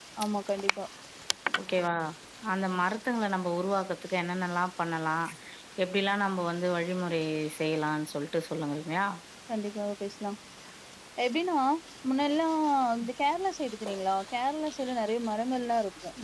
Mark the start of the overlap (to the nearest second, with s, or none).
none